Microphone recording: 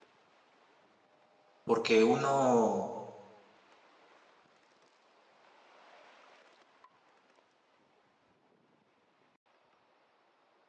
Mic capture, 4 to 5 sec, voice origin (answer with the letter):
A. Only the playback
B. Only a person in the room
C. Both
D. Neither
D